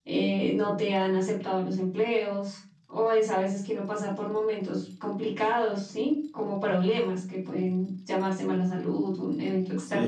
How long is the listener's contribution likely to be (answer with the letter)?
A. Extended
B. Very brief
A